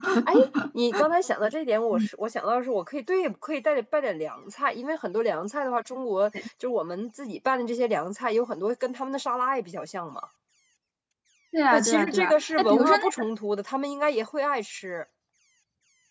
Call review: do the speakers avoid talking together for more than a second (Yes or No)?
No